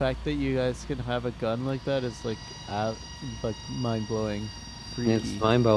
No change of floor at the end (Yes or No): No